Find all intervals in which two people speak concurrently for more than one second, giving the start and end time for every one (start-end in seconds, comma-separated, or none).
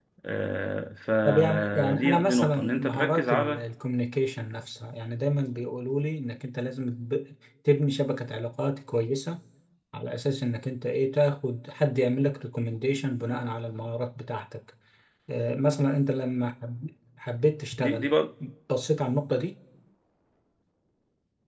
1.2-3.6